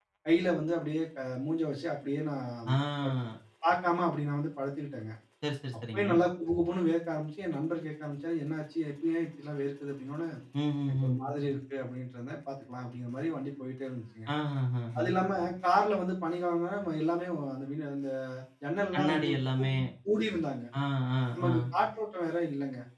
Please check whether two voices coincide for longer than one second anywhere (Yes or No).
No